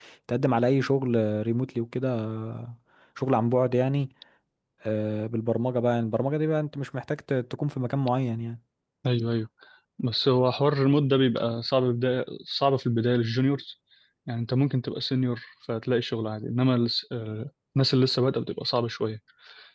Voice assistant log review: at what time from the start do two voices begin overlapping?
none

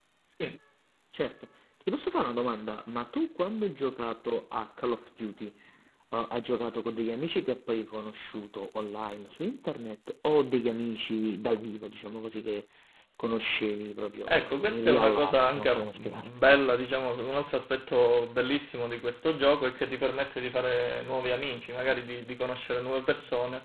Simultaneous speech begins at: 14.3 s

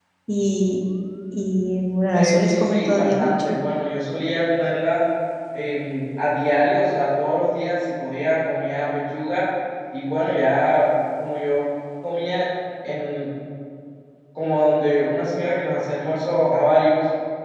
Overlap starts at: 2.1 s

